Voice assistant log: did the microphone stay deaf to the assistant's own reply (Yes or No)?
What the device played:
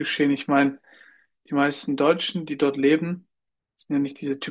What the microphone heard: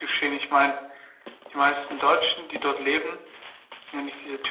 No